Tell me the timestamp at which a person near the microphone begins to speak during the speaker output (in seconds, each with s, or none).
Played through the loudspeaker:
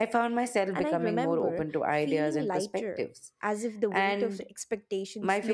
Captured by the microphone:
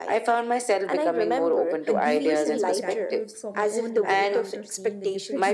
1.9 s